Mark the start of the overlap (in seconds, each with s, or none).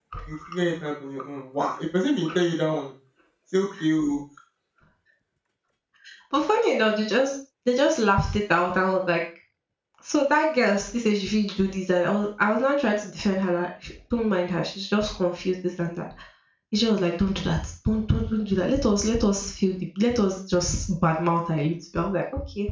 none